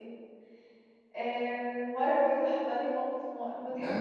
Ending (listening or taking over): taking over